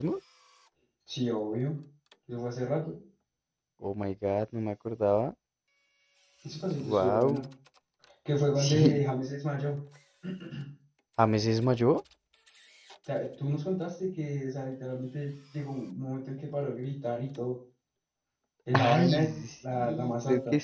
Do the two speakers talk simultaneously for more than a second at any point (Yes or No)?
Yes